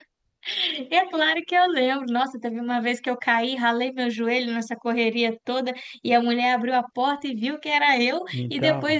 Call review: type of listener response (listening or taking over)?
listening